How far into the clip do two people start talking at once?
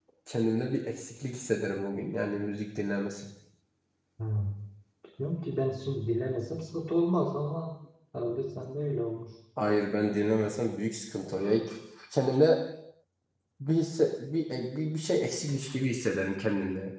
none

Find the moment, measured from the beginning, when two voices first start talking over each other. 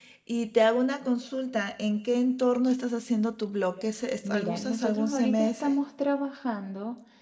4.2 s

